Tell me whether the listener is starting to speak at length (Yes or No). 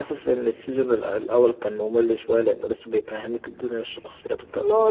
Yes